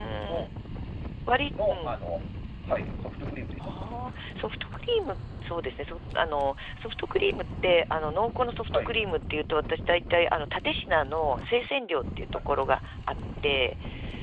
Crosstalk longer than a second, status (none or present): none